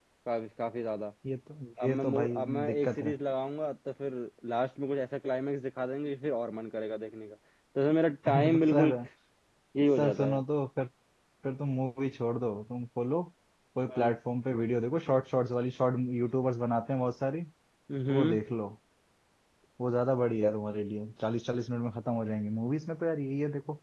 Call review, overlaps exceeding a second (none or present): present